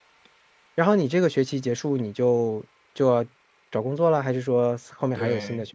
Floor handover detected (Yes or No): Yes